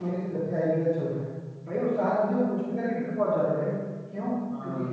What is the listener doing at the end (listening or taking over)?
listening